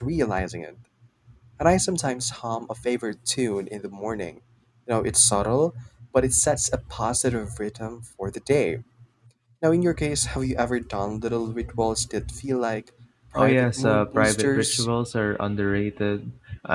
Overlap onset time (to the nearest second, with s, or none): 13 s